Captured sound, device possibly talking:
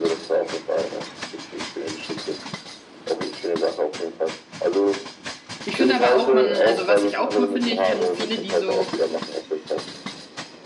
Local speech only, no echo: ich finde aber auch, man, also was ich auch cool finde, ich kenne viele, die so,

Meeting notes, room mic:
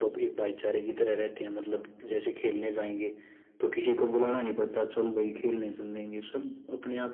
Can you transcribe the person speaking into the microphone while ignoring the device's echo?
none

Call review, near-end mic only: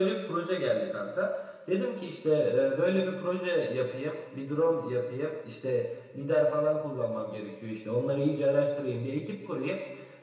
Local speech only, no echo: none

